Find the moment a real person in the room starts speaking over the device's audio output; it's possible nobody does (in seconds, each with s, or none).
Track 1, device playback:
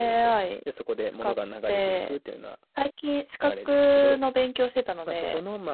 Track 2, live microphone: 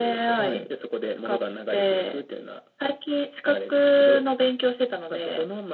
0.4 s